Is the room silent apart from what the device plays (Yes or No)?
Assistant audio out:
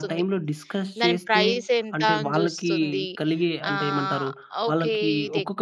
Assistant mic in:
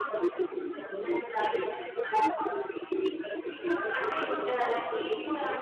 No